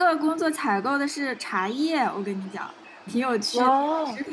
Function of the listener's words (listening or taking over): listening